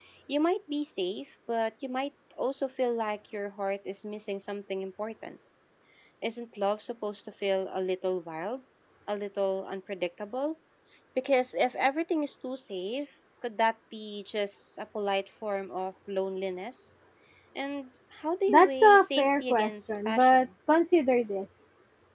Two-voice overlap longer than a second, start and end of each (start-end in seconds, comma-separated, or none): 18.5-20.5